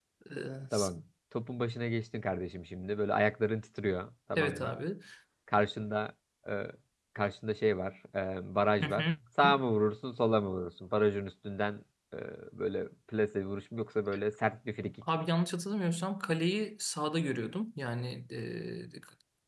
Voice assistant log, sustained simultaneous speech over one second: none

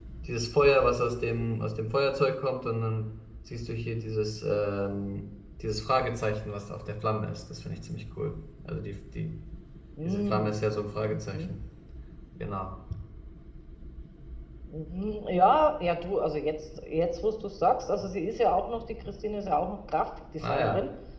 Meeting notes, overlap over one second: none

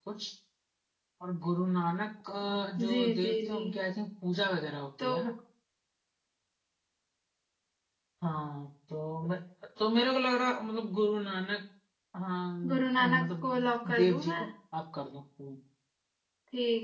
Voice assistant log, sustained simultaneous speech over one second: present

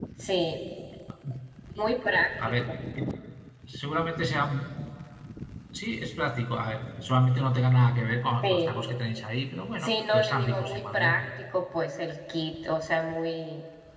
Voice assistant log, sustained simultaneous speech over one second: present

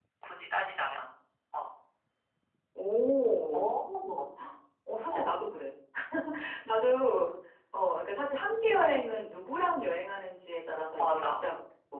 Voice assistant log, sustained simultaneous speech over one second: none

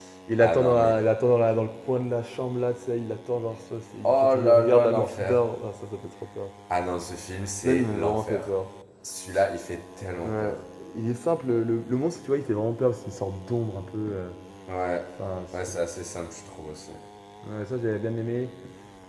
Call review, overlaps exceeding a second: present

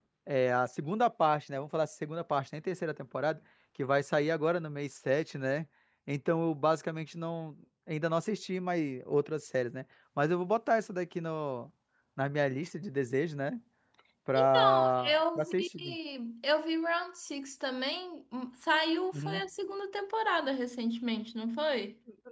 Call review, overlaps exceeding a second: present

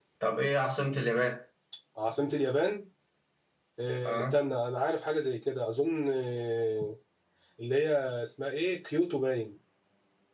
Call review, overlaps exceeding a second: none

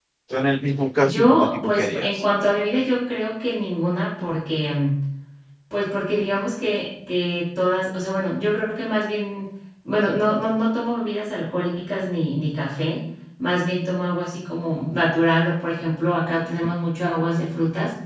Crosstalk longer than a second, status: present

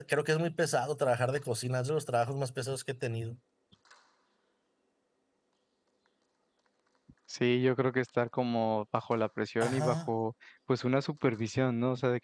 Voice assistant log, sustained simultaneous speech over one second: none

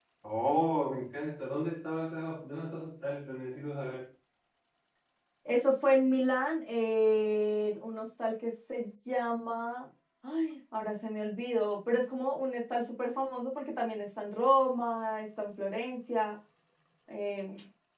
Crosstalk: none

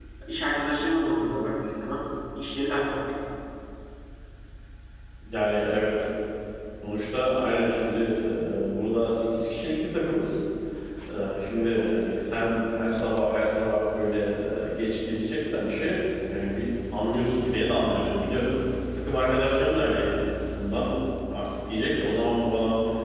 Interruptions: none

